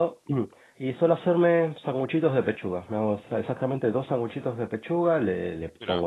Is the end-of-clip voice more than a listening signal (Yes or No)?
No